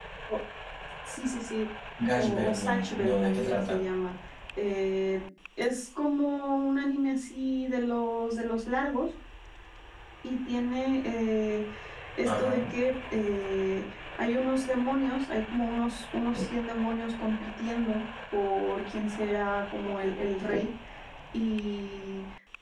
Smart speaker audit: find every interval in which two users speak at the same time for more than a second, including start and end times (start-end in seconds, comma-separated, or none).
2.1-3.8